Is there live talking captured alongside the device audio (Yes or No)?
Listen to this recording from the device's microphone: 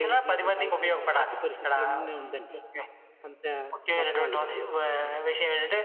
Yes